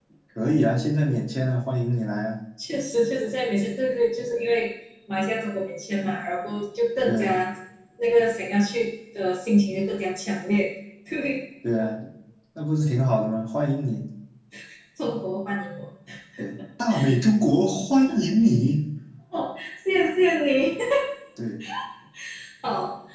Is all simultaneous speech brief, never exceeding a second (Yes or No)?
Yes